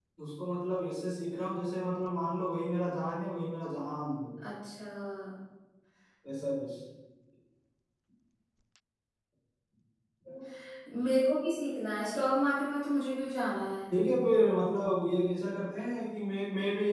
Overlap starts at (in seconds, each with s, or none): none